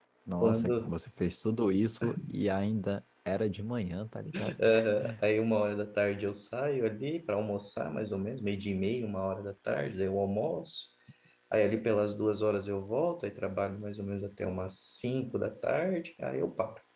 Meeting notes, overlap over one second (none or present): none